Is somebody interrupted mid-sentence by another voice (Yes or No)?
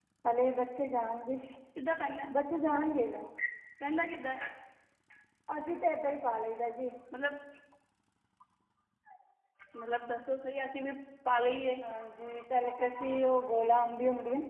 No